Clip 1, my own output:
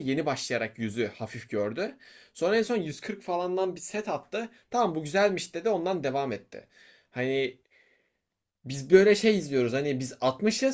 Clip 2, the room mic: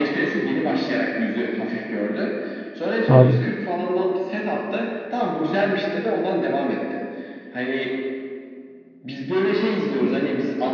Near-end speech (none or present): present